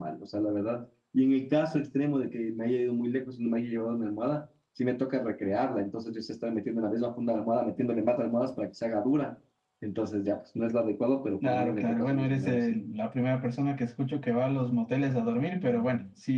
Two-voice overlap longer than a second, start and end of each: 11.4-12.6

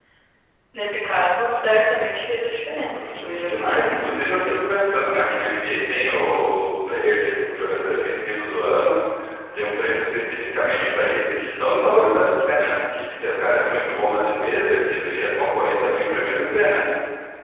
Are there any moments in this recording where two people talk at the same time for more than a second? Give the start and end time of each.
2.9-4.8

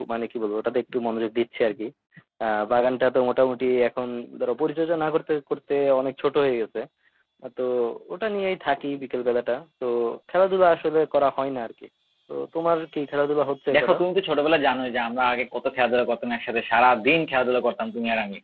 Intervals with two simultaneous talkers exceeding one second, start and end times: none

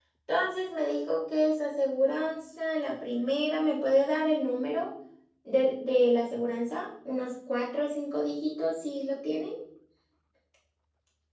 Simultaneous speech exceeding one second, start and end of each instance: none

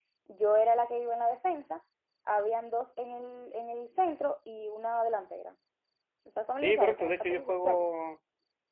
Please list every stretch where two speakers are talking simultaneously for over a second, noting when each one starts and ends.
6.6-7.9

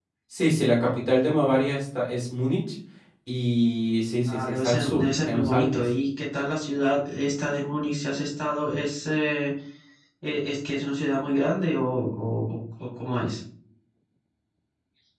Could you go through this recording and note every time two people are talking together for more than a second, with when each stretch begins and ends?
4.3-5.8

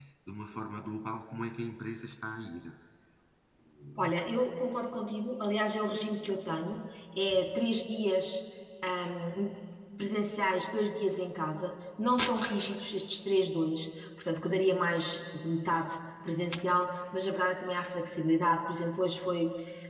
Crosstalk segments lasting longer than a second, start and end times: none

